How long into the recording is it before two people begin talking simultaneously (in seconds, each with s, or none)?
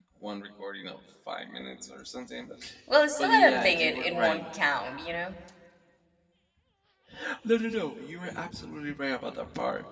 3.2 s